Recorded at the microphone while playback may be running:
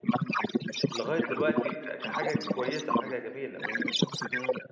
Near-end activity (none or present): present